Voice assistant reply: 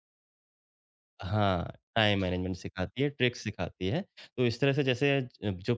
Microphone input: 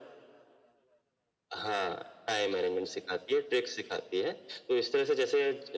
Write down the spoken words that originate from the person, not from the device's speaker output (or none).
none